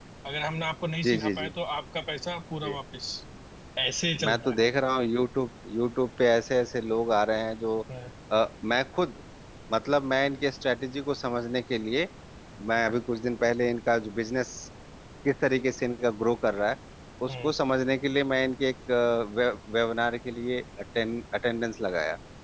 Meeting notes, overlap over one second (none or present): none